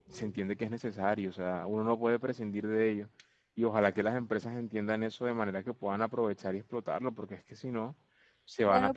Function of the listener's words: taking over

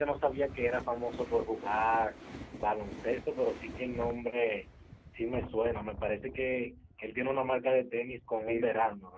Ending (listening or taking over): taking over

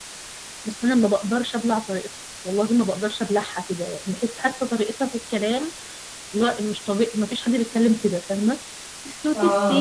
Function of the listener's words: listening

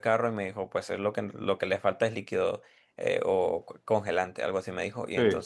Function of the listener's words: listening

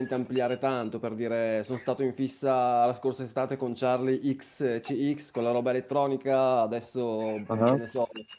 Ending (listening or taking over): listening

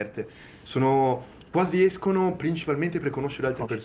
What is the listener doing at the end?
taking over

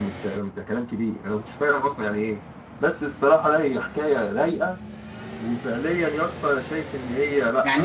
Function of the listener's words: taking over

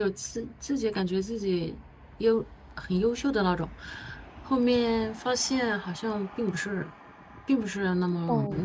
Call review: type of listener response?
taking over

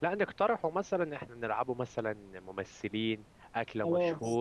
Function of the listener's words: taking over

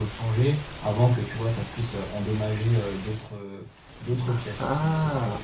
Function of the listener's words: taking over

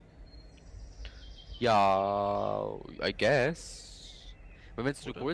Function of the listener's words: listening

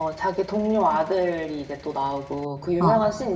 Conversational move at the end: listening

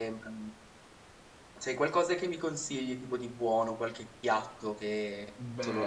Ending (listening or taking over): taking over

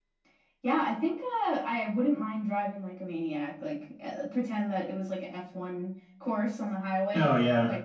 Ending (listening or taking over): listening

